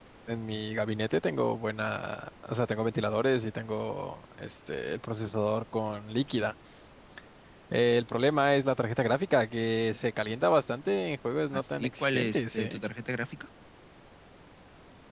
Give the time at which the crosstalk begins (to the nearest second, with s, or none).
12 s